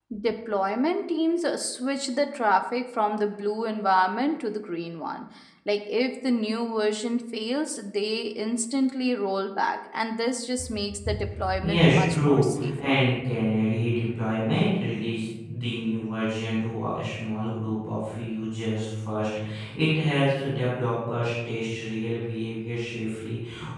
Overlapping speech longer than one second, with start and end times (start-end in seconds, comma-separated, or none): 11.6-13.0